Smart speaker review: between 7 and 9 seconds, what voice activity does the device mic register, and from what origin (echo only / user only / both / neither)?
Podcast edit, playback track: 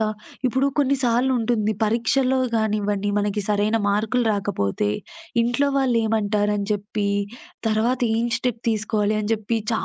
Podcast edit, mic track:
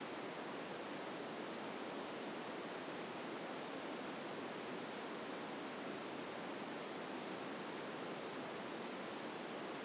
neither